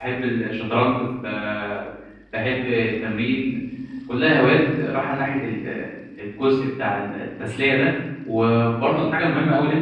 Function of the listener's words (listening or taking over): listening